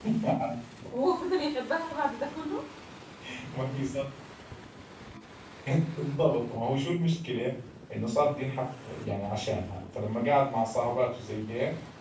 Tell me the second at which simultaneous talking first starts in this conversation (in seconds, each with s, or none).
none